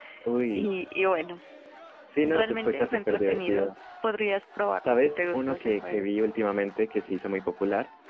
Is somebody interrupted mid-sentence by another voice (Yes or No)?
Yes